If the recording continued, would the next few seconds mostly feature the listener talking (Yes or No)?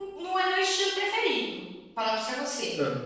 No